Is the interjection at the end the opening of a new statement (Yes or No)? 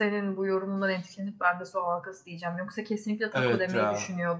No